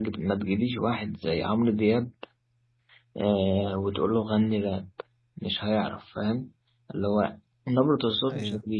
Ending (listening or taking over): listening